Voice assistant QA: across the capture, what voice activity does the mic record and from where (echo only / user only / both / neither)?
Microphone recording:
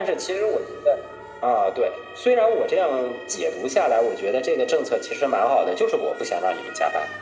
echo only